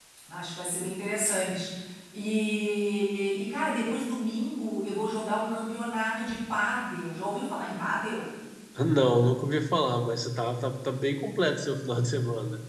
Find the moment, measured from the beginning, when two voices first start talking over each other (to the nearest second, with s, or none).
none